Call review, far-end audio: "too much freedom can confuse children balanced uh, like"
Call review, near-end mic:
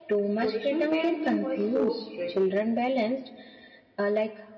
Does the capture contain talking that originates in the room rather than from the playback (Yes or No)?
Yes